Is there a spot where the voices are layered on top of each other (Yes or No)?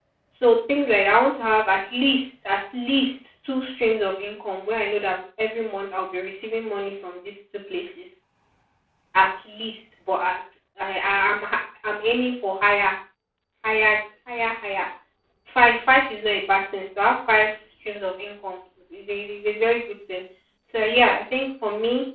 No